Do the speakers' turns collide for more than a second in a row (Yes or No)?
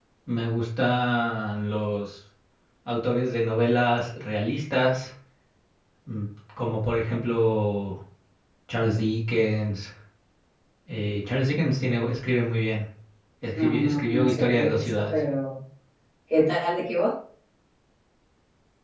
Yes